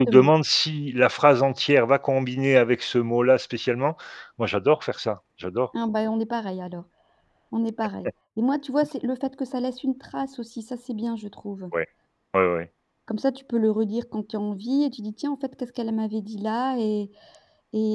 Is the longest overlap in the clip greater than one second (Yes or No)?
No